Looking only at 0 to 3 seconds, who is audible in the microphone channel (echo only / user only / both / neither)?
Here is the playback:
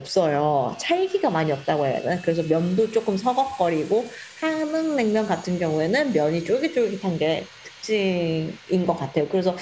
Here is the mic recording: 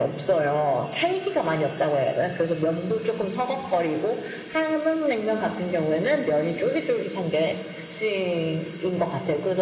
echo only